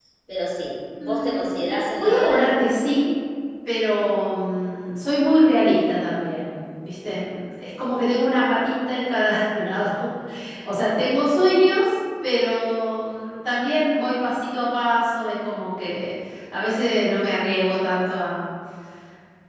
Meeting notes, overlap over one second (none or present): present